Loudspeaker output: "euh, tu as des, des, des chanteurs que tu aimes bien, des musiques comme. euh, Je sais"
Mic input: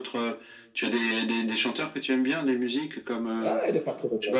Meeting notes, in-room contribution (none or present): present